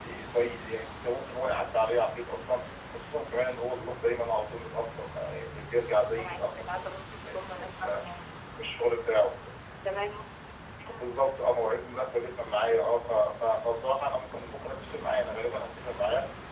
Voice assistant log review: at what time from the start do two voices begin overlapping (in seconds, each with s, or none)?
6.2 s